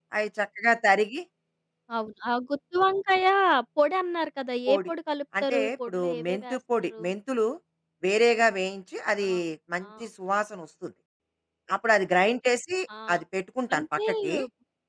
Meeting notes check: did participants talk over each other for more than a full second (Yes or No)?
Yes